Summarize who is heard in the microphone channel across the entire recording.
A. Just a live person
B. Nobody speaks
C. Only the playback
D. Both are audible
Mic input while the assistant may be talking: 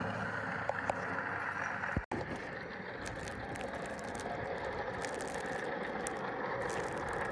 B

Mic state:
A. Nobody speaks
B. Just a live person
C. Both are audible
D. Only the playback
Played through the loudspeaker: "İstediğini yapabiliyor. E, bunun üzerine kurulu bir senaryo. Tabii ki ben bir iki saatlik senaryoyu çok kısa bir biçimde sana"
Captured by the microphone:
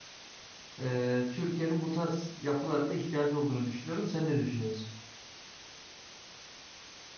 B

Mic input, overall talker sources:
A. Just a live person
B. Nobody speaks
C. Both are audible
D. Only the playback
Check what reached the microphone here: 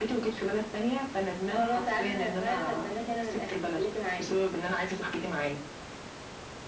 D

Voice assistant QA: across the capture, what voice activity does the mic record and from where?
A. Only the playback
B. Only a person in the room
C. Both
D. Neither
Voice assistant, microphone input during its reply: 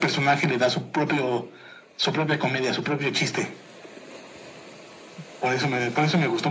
A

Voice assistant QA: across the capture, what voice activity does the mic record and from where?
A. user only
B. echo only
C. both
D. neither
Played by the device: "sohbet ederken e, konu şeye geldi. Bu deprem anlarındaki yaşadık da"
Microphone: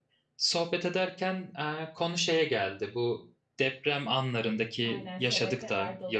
C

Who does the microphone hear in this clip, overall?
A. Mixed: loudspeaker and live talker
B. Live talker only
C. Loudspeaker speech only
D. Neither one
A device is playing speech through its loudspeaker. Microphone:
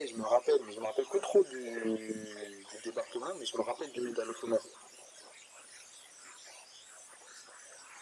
C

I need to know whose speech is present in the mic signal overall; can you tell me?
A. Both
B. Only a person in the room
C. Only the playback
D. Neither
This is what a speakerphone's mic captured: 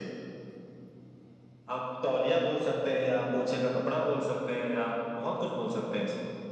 C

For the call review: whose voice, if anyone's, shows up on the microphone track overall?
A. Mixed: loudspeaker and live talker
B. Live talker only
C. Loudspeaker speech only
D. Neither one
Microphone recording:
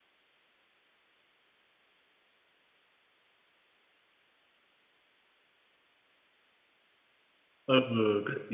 B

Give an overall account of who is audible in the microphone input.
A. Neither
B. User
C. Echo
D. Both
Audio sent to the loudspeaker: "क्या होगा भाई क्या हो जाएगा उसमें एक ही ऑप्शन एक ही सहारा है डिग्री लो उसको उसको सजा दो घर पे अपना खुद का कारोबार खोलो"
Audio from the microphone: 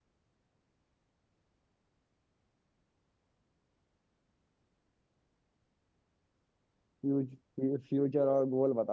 B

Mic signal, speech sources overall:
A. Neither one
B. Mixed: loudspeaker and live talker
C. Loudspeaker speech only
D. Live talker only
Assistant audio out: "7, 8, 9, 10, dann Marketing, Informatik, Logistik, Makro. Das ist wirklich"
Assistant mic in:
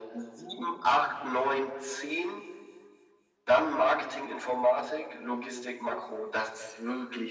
C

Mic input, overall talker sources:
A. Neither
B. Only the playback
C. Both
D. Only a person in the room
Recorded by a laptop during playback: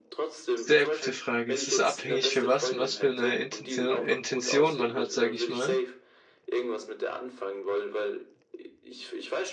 C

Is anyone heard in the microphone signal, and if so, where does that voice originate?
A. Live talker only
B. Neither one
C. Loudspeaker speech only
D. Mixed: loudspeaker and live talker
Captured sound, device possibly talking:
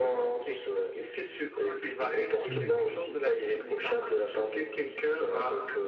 D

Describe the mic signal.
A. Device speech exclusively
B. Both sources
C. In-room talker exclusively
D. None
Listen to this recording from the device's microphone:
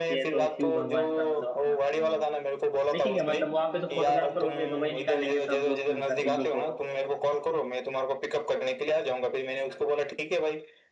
B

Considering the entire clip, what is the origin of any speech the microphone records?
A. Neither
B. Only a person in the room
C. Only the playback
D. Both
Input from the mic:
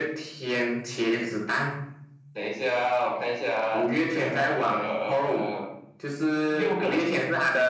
C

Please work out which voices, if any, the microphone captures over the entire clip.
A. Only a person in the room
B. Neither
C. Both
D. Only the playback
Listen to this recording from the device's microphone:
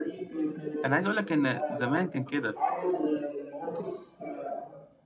C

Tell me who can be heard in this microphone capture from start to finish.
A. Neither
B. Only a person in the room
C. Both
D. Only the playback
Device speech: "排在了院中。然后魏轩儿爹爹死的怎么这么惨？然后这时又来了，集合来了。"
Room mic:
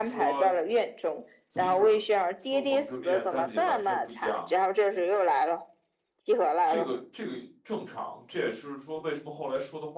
C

